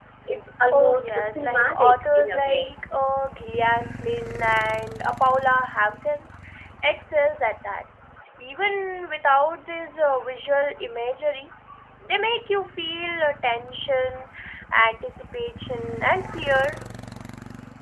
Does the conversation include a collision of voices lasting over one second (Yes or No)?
Yes